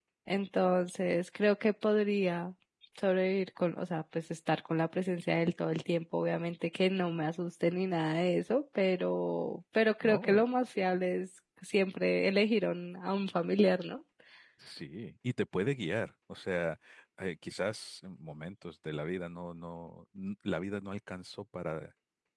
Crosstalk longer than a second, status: none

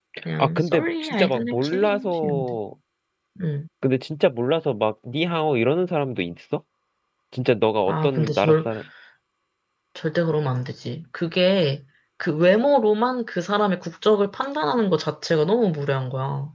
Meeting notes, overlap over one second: present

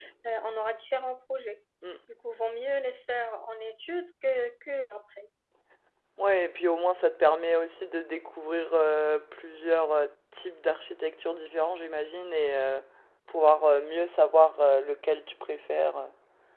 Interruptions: none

